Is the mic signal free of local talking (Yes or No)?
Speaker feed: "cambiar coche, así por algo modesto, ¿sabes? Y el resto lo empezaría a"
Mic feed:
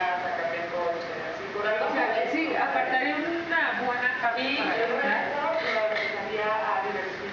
No